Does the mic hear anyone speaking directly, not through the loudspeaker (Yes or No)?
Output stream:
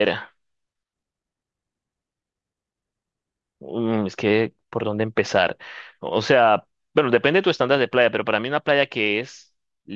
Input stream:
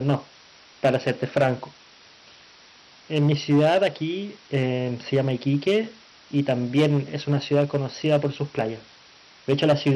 Yes